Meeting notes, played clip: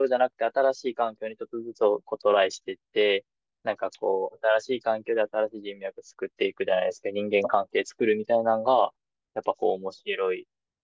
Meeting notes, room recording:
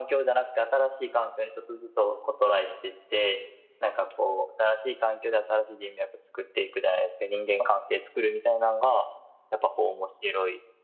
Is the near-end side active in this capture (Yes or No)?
No